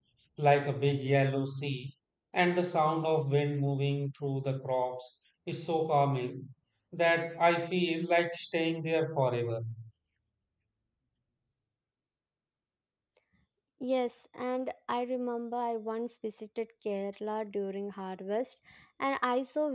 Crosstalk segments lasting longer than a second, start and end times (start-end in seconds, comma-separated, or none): none